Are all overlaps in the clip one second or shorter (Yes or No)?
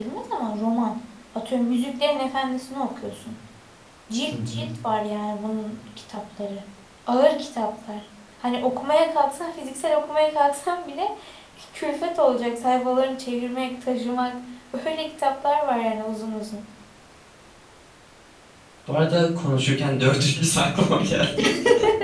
Yes